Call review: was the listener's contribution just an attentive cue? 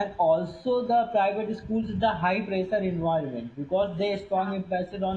Yes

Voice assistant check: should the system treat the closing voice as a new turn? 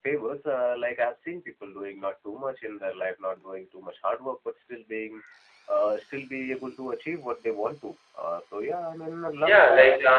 Yes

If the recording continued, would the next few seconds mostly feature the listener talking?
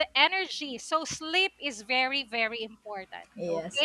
Yes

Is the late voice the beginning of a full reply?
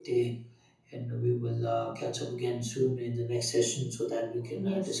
Yes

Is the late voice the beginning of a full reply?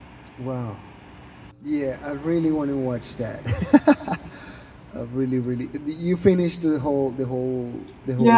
Yes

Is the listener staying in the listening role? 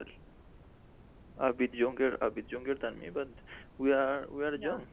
Yes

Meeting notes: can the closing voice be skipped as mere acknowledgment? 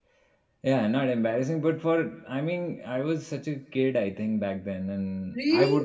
No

